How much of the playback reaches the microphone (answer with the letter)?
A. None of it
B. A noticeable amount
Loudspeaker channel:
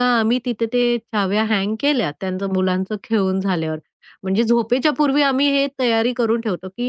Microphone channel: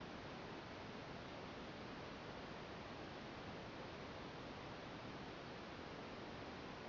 A